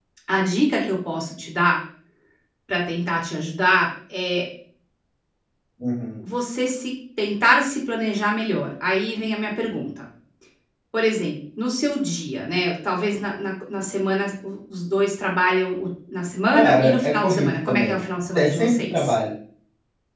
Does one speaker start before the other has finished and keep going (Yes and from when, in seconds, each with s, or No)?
Yes, from 16.5 s